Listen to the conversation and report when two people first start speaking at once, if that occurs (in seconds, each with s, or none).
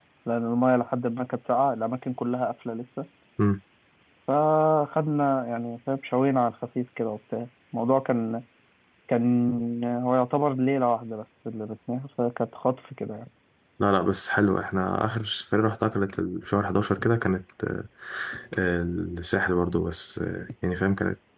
none